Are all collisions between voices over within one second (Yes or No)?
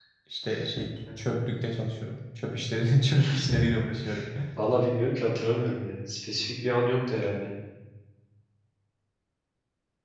Yes